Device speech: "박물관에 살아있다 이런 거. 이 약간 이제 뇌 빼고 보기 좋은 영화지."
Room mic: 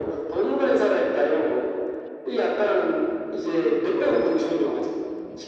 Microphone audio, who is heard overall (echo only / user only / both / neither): both